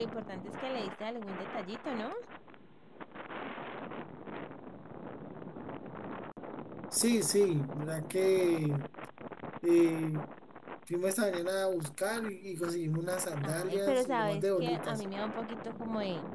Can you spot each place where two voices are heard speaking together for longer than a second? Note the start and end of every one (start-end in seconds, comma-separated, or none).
13.4-15.0